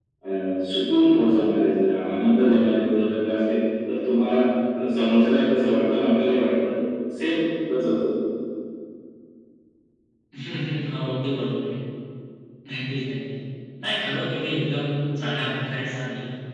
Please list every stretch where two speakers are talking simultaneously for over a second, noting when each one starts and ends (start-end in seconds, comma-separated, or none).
none